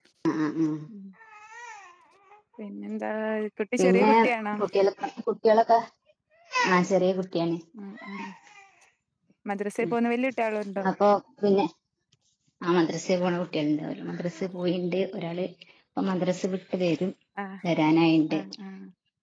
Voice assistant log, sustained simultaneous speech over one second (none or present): none